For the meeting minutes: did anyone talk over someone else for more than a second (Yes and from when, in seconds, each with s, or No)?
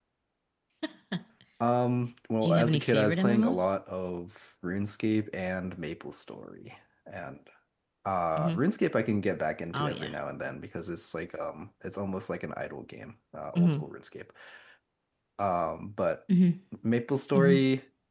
Yes, from 2.4 s